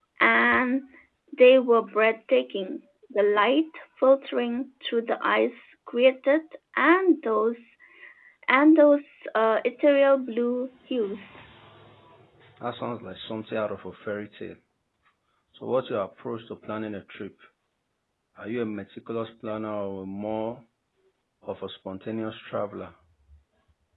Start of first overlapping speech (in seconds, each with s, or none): none